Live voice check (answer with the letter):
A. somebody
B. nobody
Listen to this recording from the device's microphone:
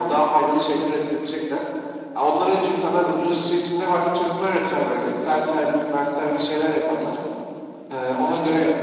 B